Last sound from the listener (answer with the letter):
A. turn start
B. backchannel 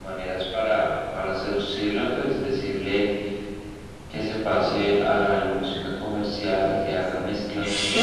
A